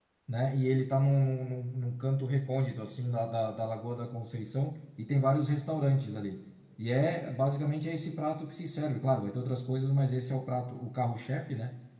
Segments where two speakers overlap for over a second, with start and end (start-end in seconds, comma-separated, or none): none